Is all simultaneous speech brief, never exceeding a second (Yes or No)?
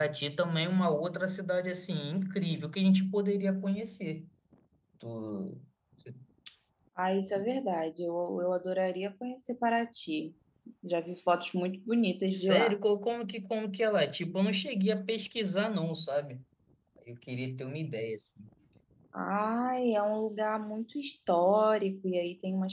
Yes